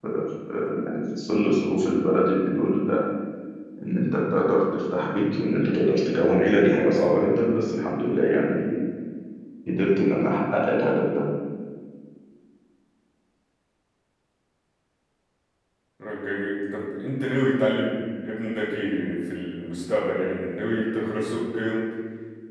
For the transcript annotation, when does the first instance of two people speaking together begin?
none

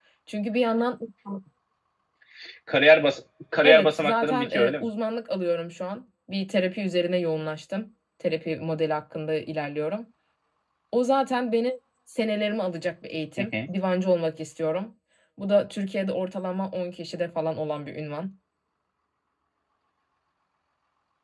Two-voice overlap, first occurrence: 3.6 s

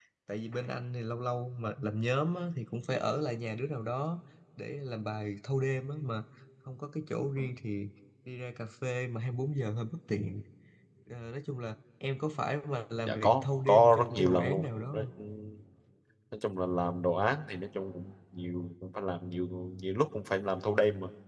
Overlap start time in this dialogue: 13.1 s

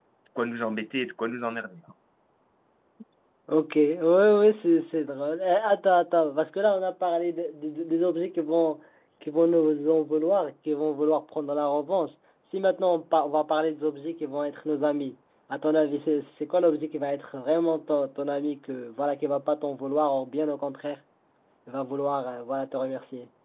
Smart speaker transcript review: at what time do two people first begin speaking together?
none

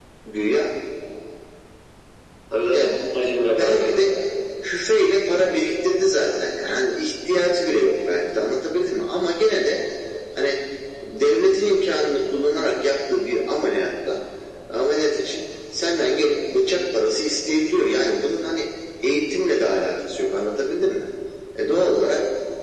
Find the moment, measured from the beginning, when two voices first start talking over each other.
2.7 s

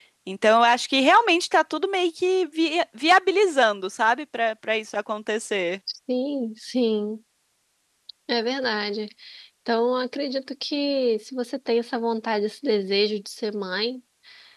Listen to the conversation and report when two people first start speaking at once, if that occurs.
none

